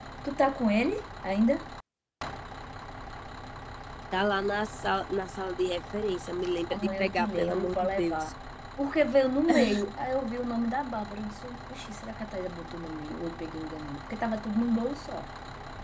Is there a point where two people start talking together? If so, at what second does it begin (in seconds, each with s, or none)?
6.7 s